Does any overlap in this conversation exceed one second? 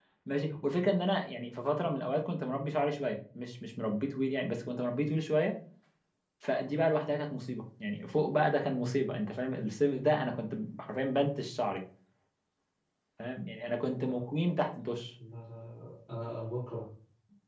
No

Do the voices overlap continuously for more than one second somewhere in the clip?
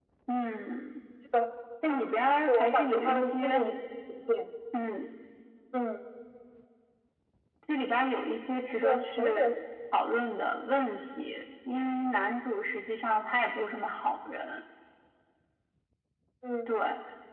Yes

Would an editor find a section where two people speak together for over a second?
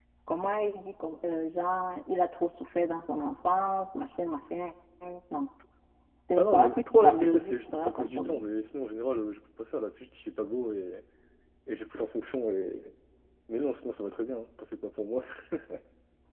Yes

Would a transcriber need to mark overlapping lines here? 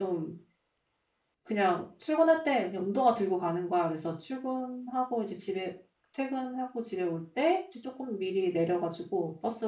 No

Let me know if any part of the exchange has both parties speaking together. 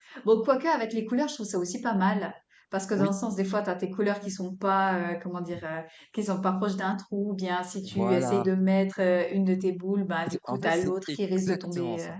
Yes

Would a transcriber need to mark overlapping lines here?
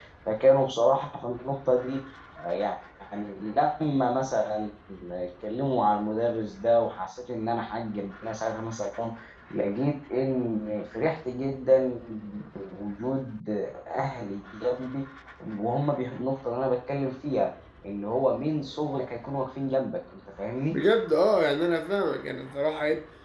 No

